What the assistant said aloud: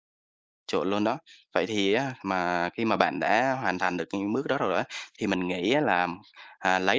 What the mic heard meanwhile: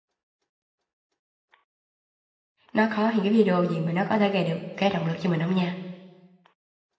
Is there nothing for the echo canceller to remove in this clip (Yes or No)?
Yes